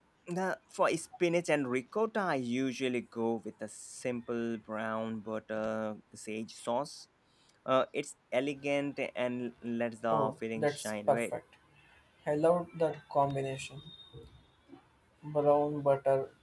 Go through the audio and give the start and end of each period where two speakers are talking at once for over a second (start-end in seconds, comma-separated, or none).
10.1-11.3